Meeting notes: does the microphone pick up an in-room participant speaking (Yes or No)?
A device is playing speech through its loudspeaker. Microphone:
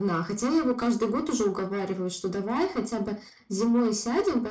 No